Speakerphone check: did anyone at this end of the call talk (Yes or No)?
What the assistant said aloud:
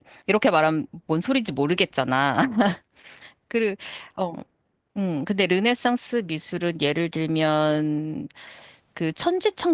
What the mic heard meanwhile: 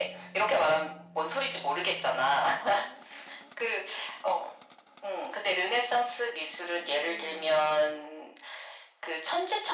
No